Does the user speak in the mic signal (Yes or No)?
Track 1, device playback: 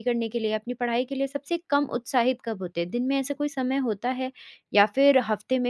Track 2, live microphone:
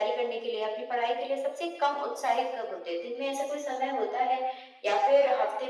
No